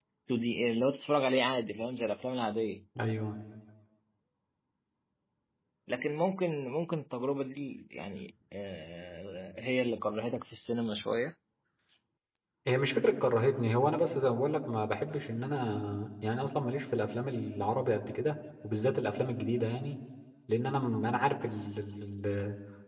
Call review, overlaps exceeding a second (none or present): none